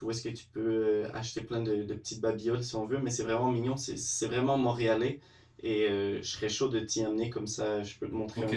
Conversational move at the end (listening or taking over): taking over